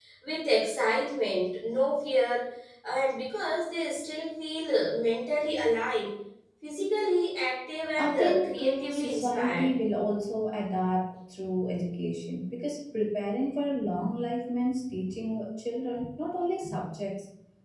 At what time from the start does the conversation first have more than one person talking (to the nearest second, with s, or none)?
8 s